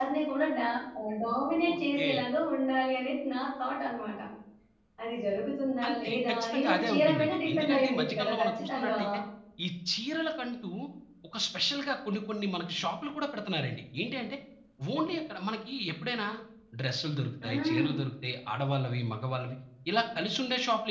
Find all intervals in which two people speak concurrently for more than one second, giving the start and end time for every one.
5.9-8.9

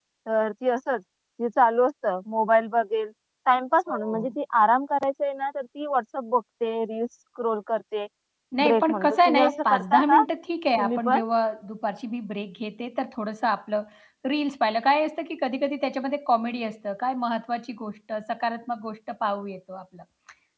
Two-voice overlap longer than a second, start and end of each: 8.7-10.2

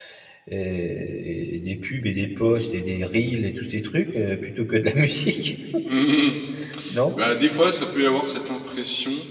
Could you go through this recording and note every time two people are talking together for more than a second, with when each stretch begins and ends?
none

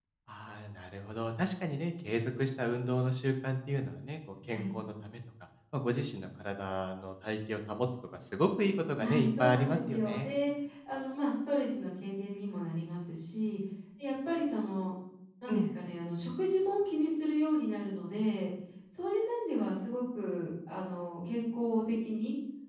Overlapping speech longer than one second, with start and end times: 9.0-10.3

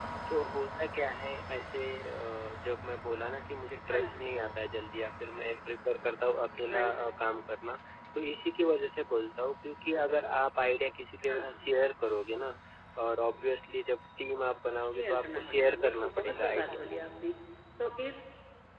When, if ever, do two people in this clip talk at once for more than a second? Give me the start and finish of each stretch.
14.9-16.8

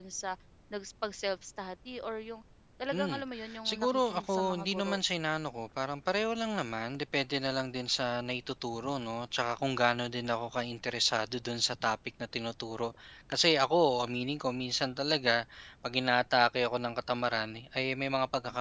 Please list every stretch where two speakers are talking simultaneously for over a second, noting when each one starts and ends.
3.6-5.0

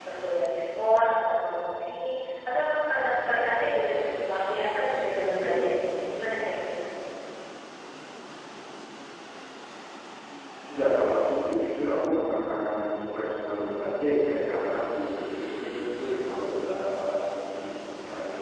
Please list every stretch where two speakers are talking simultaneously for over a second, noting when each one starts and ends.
none

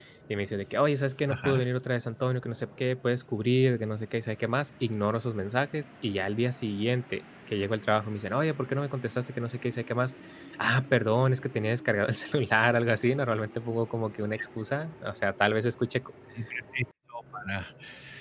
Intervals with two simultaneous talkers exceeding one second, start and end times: none

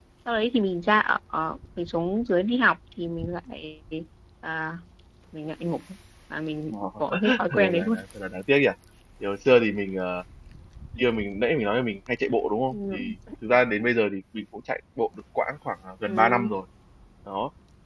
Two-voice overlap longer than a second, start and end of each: 6.7-8.0

